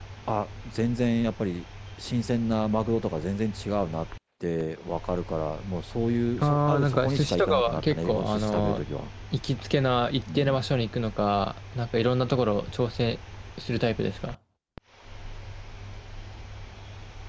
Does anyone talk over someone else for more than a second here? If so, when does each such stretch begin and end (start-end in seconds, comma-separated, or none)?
6.4-8.8